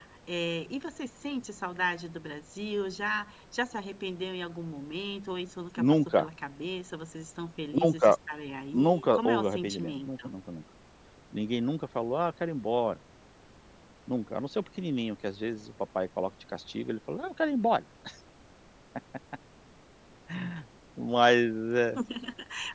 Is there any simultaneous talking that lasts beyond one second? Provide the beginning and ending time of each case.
8.7-10.3

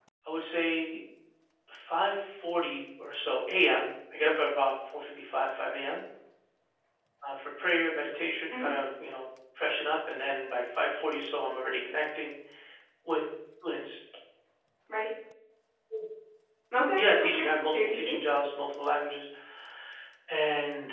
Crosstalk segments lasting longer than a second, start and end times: 17.0-18.2

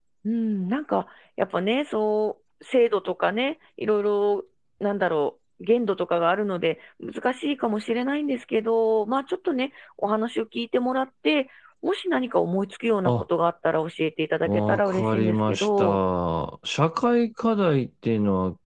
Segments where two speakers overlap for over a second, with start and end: 14.4-16.0

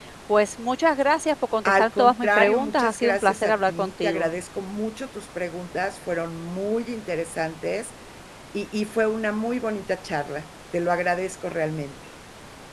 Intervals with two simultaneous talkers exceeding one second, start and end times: 1.6-4.3

